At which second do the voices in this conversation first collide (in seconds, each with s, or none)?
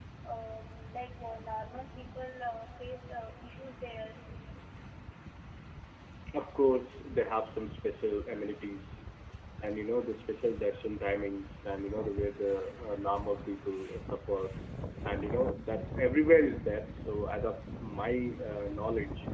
none